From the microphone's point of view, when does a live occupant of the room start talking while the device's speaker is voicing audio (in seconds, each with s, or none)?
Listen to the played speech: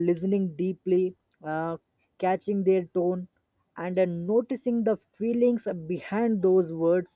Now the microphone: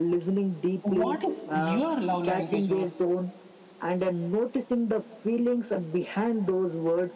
0.8 s